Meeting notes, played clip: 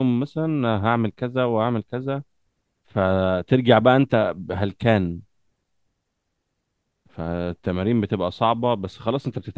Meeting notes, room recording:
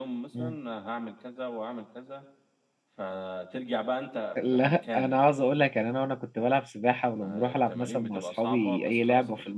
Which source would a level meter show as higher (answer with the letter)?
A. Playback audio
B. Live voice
B